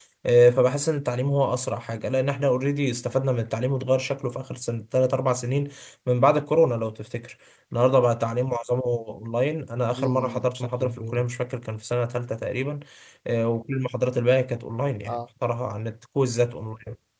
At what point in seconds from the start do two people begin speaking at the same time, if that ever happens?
10.0 s

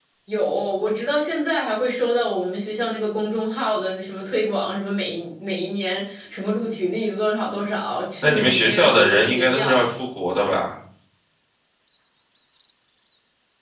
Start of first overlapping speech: 8.2 s

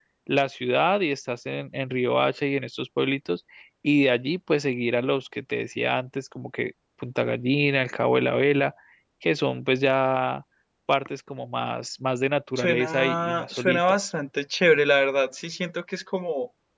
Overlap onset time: 12.6 s

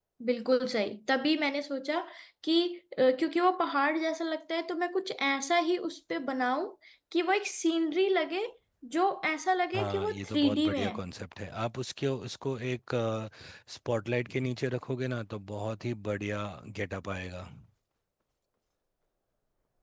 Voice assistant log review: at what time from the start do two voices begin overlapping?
9.7 s

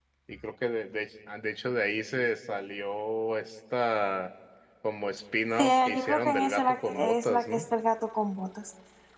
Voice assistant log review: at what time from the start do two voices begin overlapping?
5.6 s

